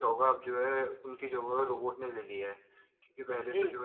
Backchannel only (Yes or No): Yes